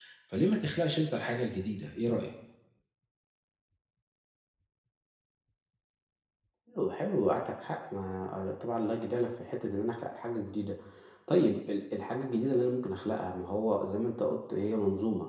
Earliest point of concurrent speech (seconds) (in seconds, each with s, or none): none